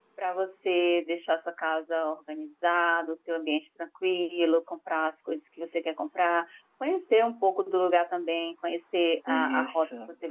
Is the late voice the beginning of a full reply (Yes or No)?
No